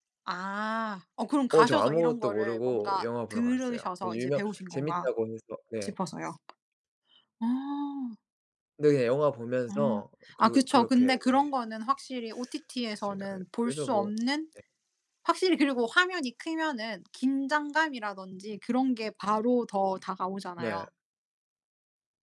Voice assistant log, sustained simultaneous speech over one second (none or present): present